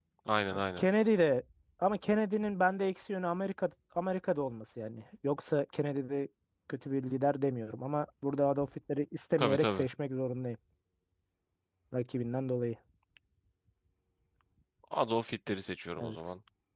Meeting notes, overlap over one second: none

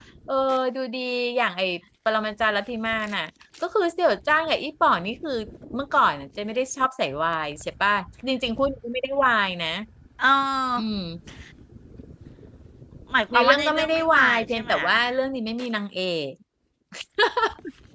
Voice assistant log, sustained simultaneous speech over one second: present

